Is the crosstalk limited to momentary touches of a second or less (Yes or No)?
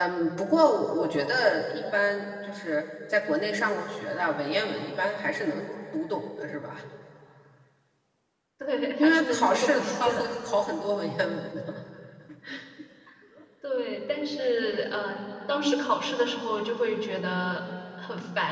No